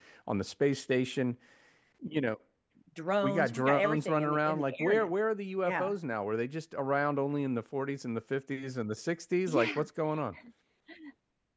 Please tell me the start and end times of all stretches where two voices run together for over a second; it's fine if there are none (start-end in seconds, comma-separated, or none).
3.2-5.1